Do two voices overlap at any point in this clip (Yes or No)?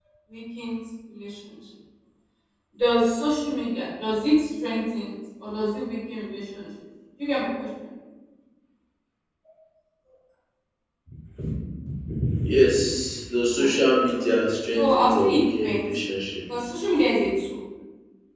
Yes